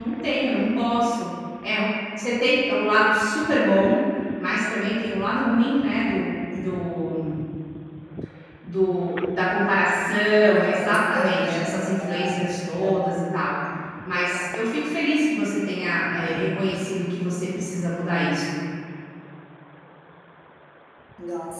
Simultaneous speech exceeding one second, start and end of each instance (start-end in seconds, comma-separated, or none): 10.4-12.3